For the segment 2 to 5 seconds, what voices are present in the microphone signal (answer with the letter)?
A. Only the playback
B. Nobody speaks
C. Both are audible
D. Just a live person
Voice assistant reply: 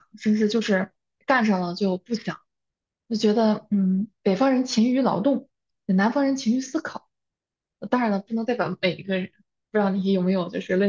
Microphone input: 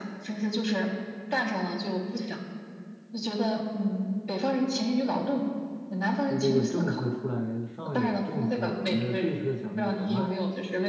A